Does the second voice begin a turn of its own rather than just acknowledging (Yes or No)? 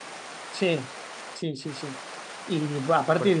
No